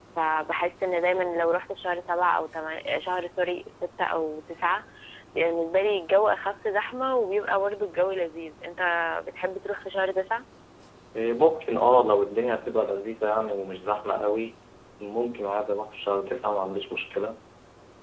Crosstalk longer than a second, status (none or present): none